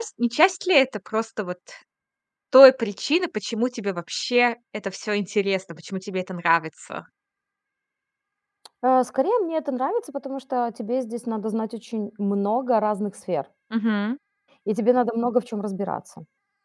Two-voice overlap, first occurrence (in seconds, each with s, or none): none